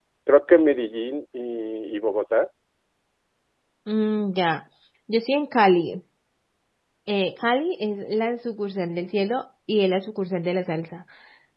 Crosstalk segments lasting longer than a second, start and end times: none

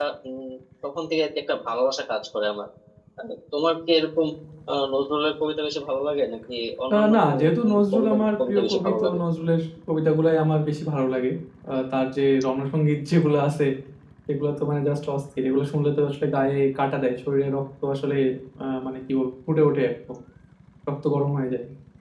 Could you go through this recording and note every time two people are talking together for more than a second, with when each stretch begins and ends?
6.9-9.2

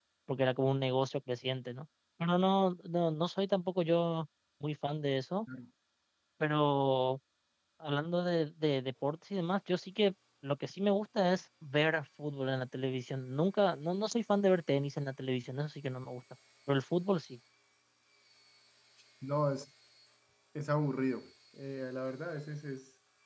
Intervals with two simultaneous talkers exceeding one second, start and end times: none

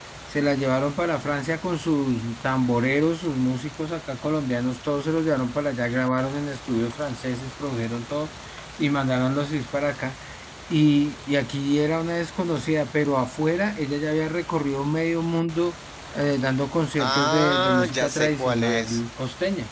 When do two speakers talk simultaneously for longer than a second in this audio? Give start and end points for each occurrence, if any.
17.0-19.0

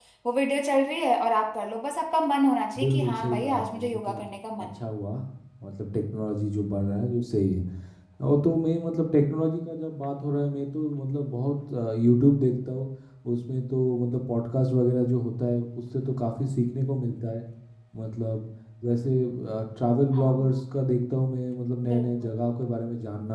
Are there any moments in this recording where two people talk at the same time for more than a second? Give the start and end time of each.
2.8-4.2

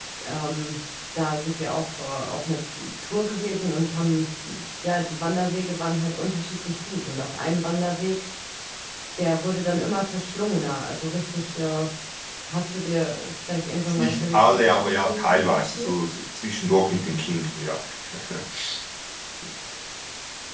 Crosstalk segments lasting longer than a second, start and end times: 13.9-15.9

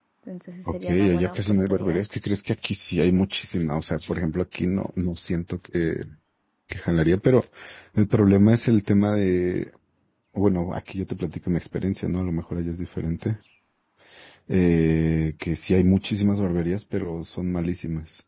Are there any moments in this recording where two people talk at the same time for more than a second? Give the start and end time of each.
0.7-2.0

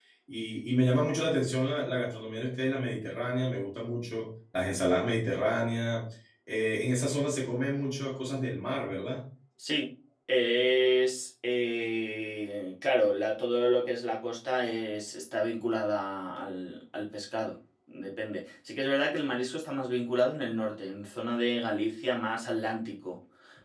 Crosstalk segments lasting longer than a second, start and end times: none

